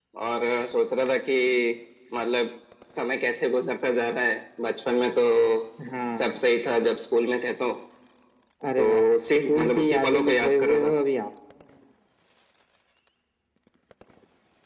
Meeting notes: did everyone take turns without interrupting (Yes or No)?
No